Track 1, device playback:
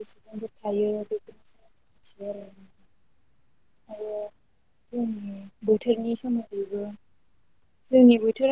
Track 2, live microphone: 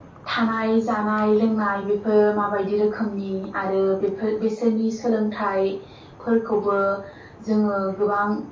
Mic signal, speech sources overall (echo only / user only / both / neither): user only